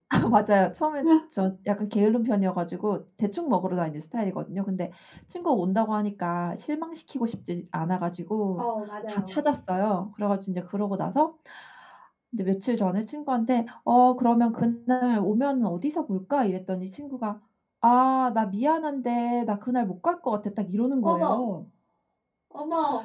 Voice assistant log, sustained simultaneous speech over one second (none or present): none